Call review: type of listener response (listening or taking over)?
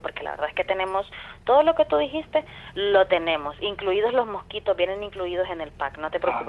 taking over